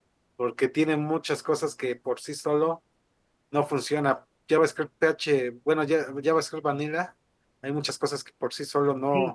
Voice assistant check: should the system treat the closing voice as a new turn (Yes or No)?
Yes